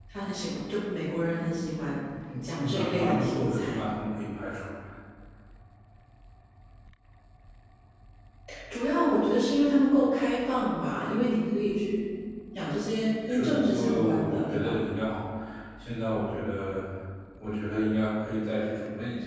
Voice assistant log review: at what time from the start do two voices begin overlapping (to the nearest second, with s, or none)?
3 s